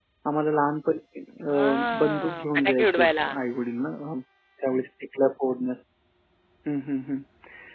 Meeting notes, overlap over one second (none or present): present